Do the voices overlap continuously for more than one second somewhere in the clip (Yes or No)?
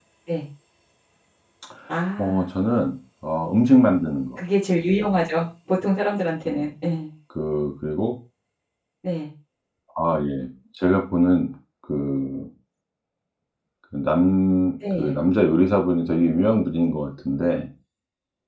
No